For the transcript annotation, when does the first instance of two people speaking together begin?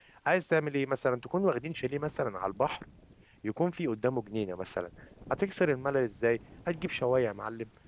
none

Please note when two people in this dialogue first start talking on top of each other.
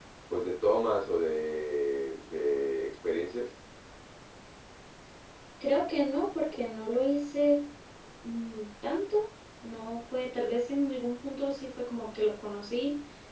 none

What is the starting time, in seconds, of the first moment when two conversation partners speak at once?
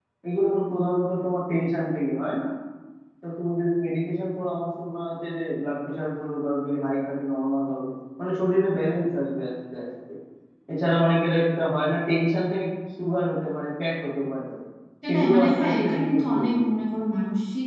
15.1 s

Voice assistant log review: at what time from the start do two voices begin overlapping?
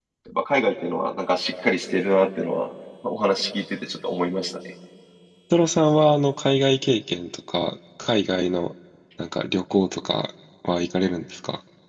none

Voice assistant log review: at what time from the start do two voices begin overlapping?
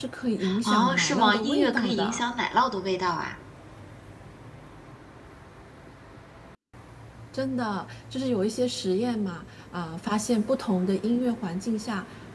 0.6 s

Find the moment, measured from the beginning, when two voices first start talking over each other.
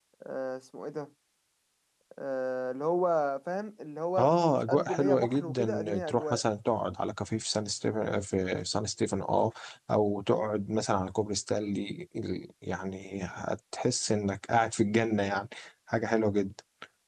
4.2 s

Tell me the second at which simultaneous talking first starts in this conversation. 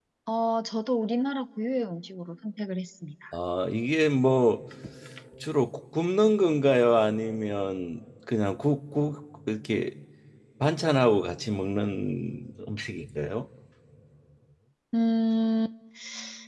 none

